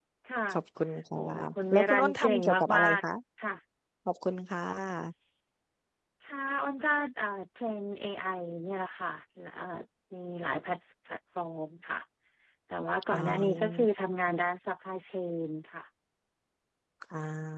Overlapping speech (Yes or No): Yes